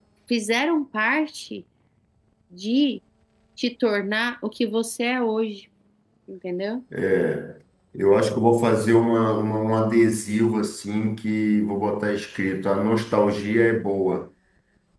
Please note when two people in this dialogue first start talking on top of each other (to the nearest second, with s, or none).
none